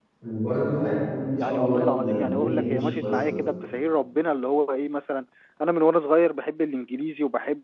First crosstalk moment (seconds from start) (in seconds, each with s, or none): 1.3 s